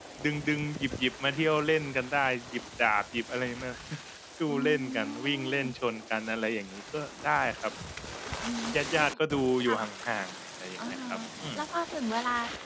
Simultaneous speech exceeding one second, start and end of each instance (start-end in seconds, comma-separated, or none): 4.5-5.7